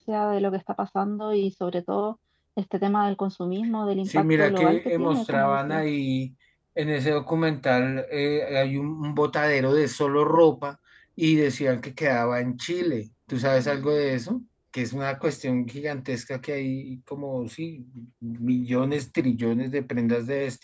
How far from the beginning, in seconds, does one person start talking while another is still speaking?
4 s

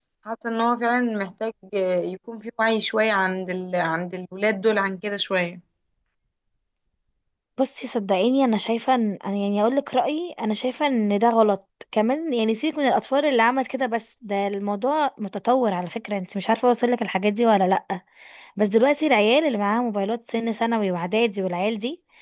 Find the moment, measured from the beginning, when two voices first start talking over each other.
none

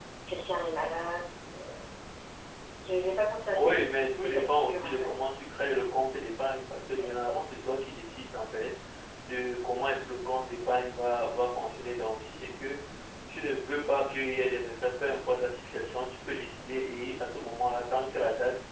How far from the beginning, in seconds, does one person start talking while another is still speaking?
4 s

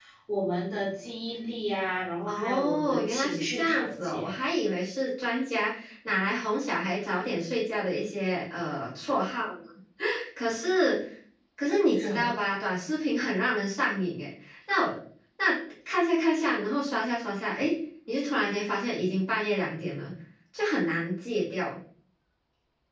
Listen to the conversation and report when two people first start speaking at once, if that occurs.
2 s

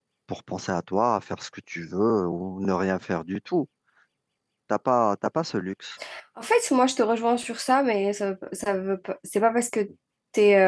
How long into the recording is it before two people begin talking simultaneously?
none

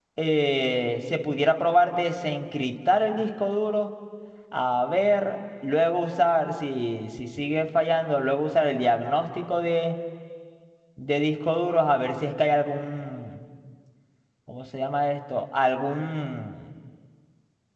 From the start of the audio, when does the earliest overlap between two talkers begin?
none

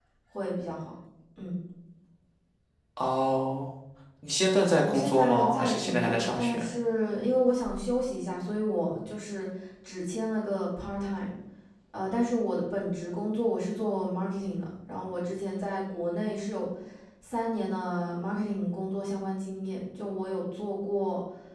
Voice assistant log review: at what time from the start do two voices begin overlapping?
5 s

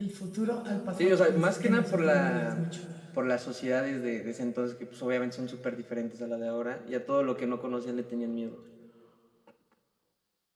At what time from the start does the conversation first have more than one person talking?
1 s

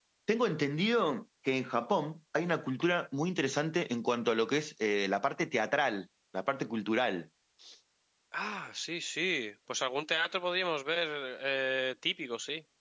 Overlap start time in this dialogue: none

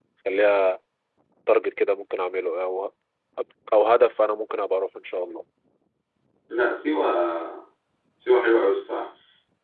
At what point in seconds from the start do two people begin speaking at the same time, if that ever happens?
none

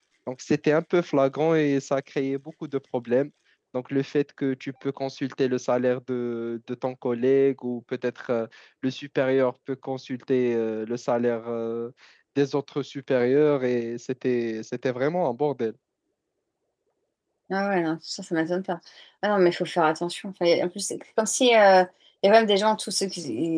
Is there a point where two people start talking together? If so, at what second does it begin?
none

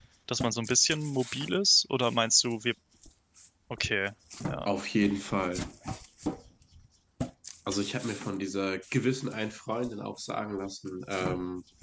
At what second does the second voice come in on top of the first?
none

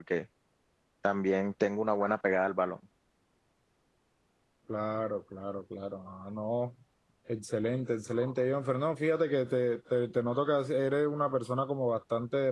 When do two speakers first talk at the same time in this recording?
none

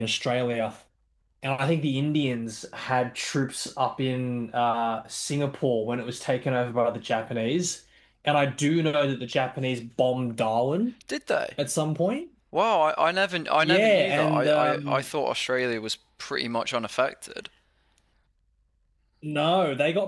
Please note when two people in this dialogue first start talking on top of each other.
14 s

